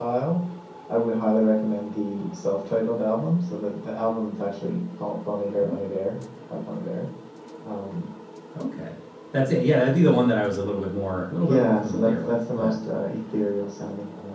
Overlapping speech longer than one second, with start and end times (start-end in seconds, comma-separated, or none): 11.4-12.7